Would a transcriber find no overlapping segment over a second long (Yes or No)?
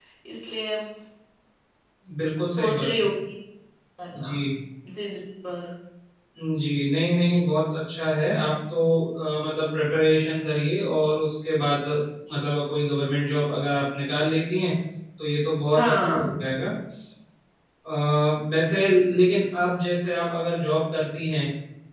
Yes